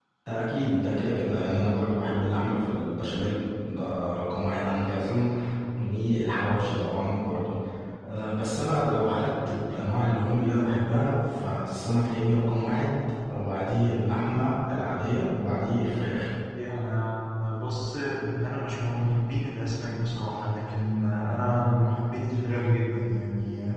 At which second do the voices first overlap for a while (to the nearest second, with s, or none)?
none